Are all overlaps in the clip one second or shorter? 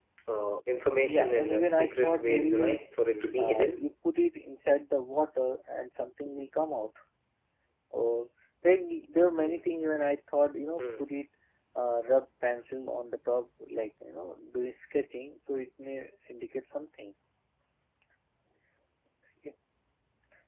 No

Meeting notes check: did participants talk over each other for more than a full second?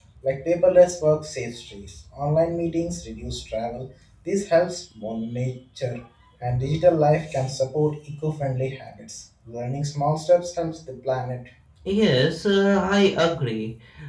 No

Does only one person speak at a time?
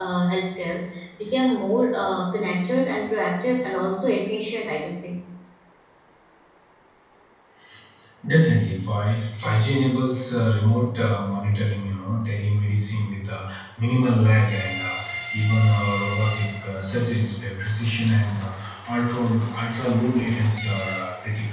Yes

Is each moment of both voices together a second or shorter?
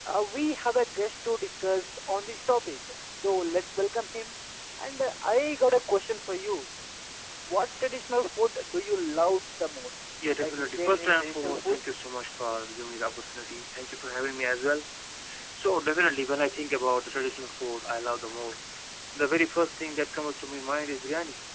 No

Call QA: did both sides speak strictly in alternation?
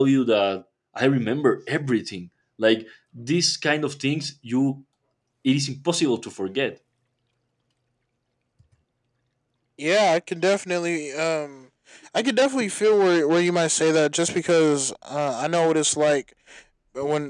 Yes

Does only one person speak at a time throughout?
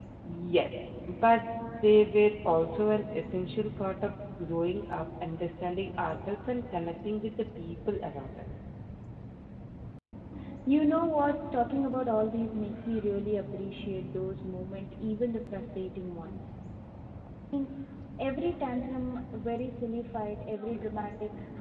Yes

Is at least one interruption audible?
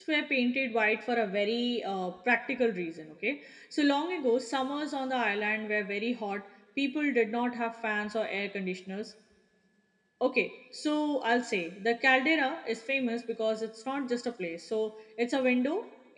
No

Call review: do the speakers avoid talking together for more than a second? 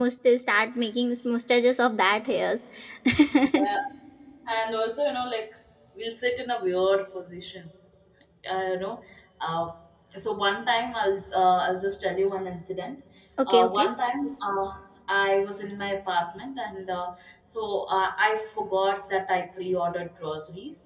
Yes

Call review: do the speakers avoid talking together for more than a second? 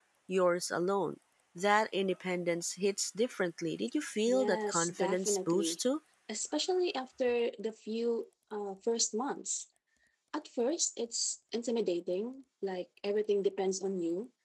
No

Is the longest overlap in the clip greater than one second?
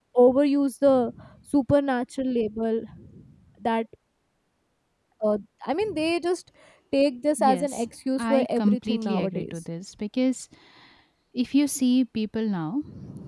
Yes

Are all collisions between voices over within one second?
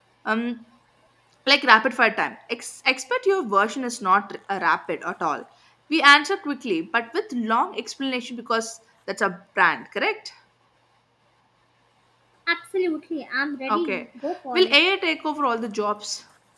Yes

